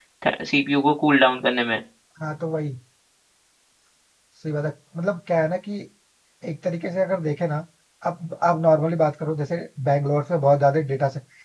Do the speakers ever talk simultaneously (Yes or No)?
No